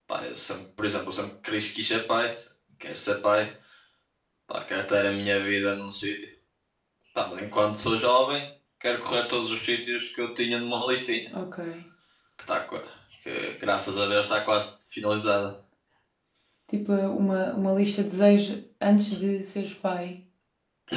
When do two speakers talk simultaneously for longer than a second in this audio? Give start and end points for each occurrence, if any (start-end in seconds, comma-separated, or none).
none